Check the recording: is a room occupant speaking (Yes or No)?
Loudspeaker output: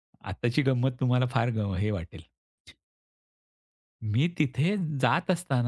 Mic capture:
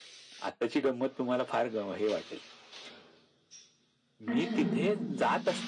Yes